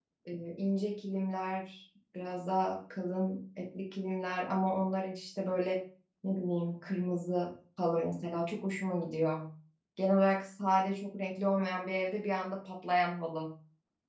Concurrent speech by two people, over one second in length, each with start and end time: none

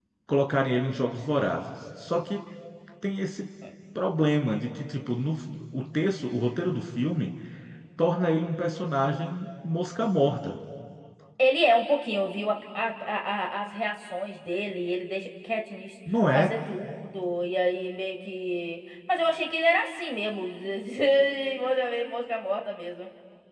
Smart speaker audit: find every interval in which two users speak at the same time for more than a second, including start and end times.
none

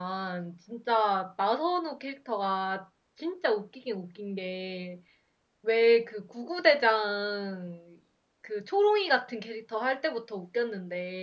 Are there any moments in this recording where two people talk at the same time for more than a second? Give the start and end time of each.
none

